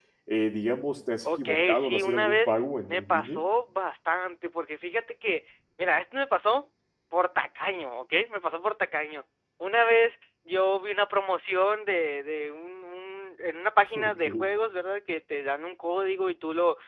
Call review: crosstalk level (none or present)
present